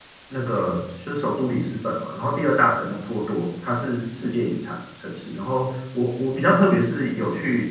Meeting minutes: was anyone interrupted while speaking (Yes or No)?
No